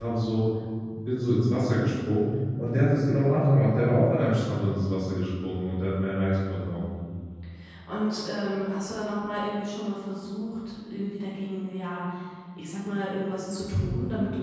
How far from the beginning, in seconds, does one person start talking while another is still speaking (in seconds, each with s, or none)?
none